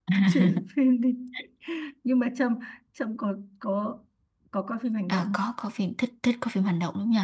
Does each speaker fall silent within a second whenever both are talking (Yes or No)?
Yes